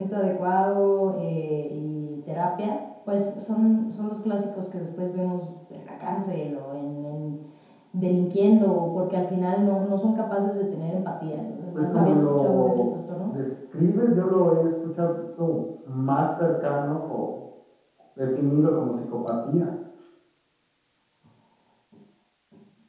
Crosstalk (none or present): present